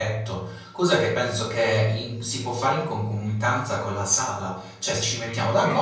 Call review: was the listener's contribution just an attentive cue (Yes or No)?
Yes